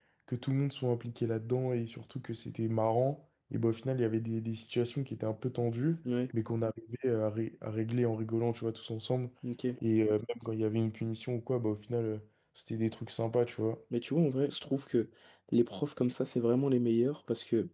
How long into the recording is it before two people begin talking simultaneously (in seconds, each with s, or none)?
none